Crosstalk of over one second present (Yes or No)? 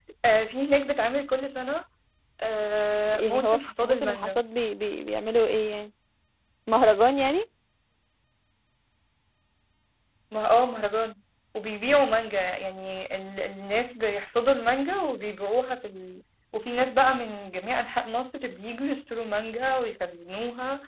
Yes